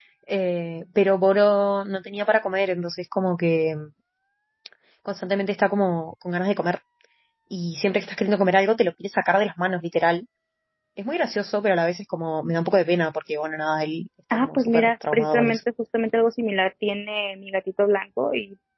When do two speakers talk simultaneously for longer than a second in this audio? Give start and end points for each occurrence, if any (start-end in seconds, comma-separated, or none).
14.3-15.6